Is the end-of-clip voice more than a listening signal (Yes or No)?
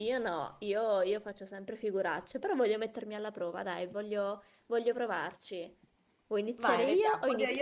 Yes